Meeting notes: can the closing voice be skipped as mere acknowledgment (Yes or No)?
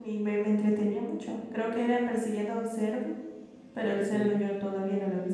Yes